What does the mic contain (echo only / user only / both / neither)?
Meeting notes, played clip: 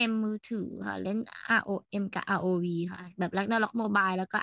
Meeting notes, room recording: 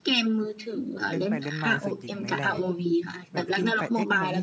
both